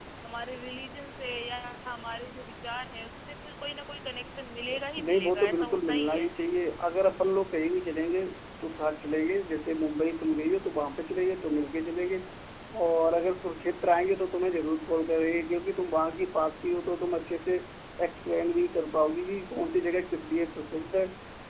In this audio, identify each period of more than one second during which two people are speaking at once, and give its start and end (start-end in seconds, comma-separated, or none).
4.7-6.3